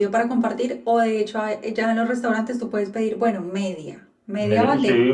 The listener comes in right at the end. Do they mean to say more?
Yes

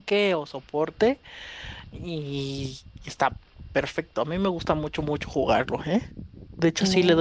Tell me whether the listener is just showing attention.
Yes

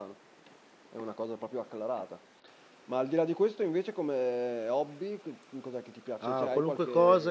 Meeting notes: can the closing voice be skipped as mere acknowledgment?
No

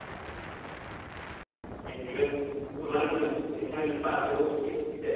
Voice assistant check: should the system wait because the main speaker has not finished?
Yes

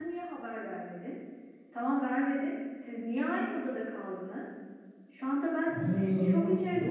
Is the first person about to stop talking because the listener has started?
Yes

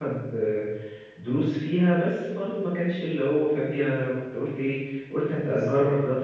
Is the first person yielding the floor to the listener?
No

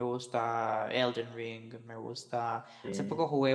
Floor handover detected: No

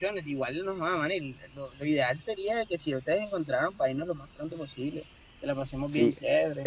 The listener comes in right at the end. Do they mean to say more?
Yes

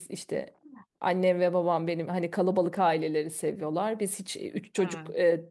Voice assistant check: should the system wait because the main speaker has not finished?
Yes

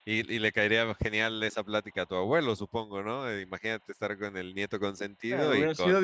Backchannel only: No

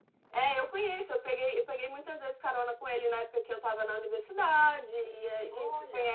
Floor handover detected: No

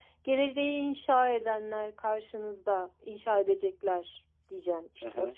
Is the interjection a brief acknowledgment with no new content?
No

